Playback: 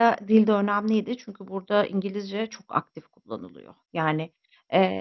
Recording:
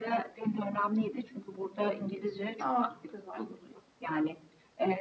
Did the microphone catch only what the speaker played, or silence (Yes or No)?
No